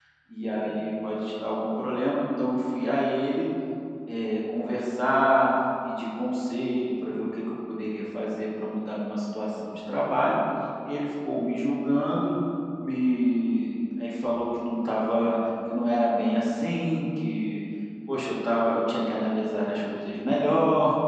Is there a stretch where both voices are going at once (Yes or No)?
No